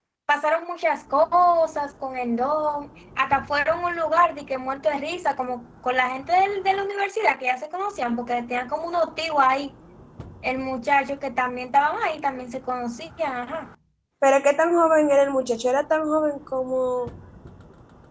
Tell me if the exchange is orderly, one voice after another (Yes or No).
Yes